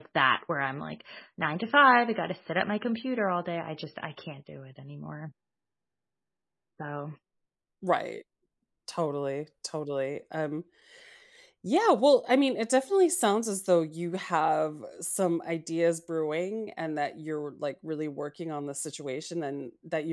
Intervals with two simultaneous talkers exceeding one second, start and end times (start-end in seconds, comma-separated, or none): none